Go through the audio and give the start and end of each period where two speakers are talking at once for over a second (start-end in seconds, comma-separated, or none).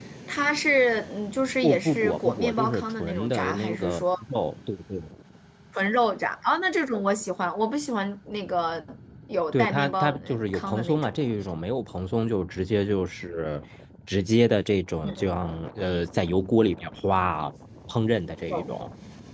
1.6-4.0, 9.5-11.1